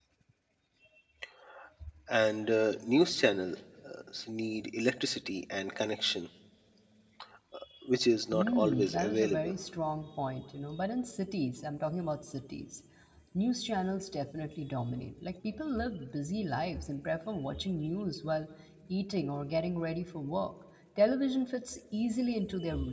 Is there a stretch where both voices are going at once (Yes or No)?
Yes